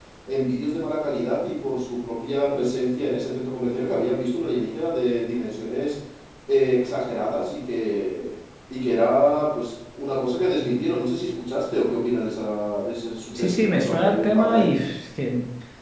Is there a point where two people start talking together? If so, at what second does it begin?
13 s

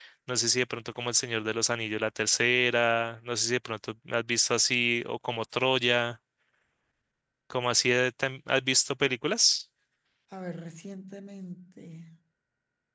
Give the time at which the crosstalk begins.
none

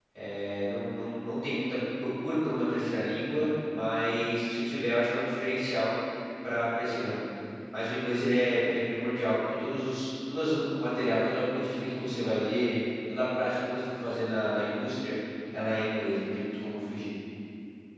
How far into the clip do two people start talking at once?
none

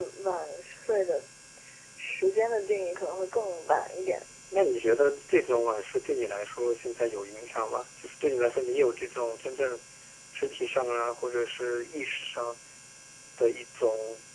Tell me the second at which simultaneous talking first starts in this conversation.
none

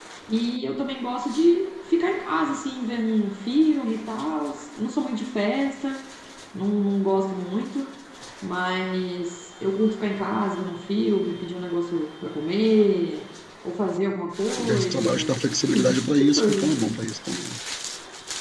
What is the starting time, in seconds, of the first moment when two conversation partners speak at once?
15 s

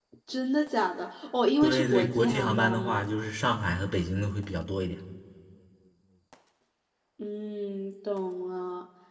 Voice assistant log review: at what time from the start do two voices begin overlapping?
2 s

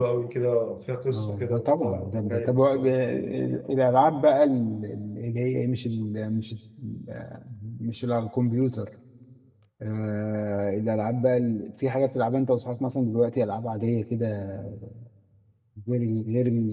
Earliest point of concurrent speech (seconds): 1 s

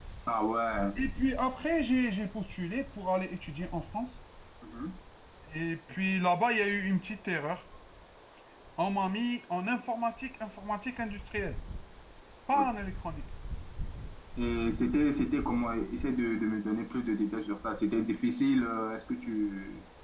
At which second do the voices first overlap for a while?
none

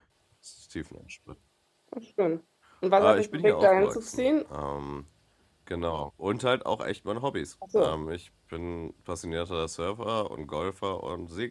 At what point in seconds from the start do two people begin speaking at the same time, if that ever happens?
3 s

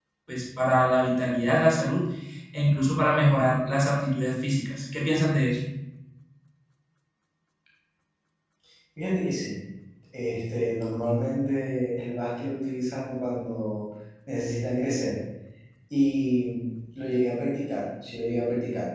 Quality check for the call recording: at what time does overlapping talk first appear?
none

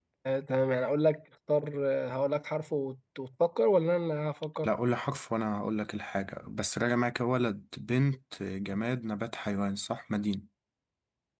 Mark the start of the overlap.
none

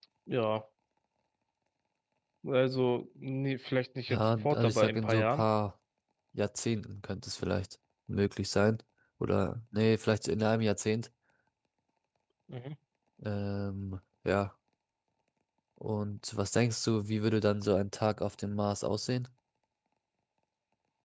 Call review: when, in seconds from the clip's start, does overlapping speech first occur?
4 s

